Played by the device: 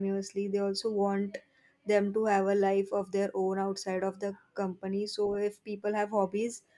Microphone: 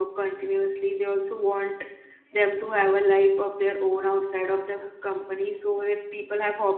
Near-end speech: none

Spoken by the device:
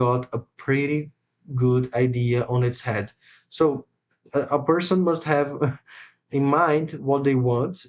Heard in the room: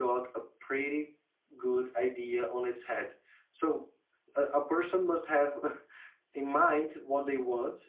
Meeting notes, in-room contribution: none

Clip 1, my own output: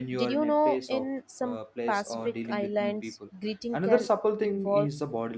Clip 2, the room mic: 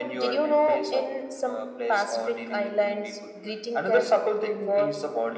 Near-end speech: none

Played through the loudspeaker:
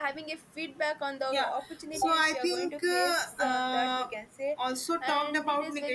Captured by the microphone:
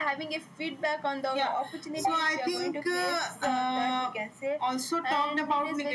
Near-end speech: none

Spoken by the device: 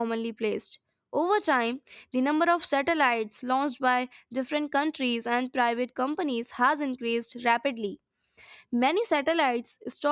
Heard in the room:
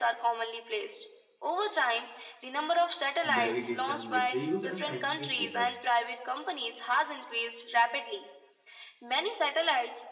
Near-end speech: present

